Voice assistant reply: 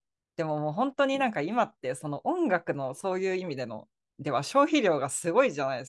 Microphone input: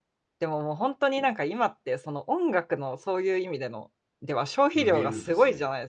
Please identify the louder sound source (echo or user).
echo